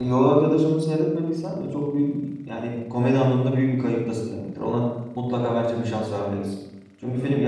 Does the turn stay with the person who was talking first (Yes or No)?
Yes